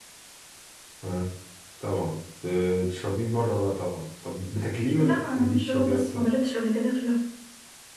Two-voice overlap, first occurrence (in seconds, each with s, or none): 5.0 s